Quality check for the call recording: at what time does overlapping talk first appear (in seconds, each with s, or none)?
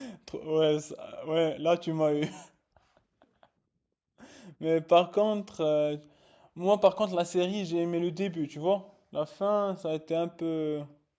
none